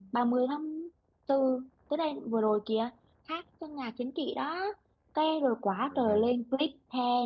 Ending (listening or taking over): listening